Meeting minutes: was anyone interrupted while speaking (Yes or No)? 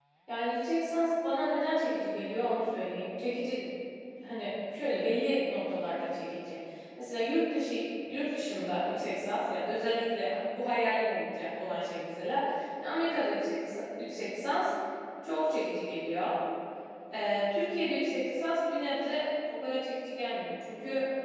No